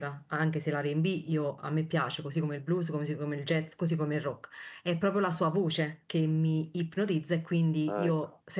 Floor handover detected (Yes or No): No